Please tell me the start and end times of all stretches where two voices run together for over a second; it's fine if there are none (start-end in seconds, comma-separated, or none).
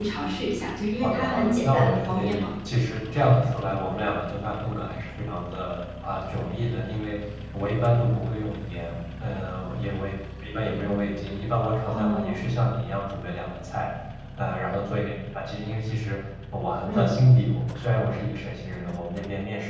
1.0-2.5